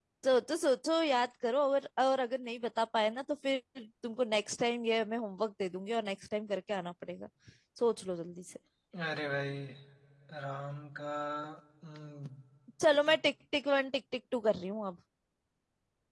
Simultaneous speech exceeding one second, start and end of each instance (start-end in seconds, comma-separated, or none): none